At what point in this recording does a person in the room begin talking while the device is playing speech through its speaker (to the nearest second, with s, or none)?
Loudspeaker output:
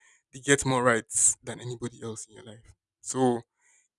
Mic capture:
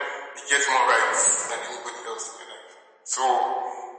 none